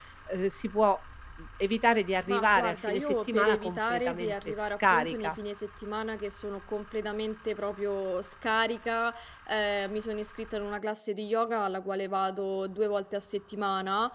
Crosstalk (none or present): present